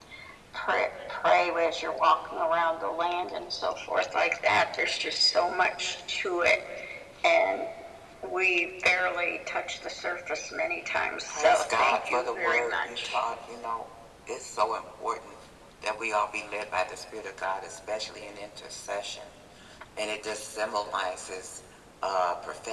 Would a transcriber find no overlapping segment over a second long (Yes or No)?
No